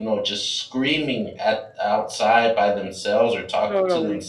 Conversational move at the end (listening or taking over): listening